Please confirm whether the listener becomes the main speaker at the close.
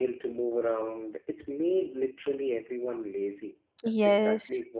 Yes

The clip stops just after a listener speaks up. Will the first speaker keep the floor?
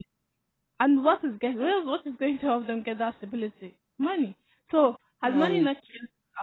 Yes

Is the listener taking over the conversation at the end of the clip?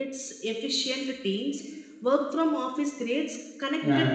Yes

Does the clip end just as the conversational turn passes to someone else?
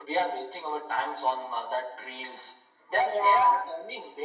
No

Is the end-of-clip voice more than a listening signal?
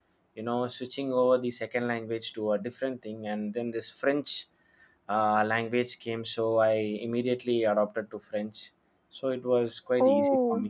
Yes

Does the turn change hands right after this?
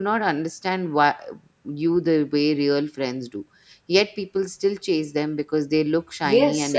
Yes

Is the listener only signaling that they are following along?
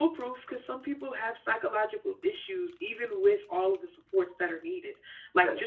Yes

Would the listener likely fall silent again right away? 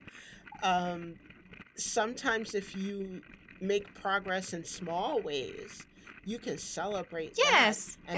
No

